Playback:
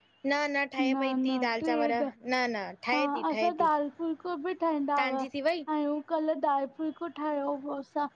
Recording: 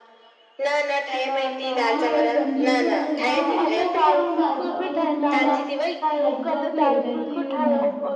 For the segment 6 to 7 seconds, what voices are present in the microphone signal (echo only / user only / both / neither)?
both